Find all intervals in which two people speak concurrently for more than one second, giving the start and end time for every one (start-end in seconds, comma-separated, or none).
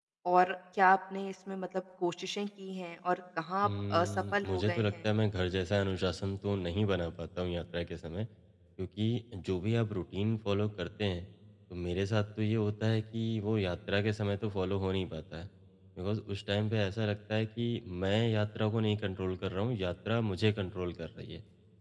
3.6-5.1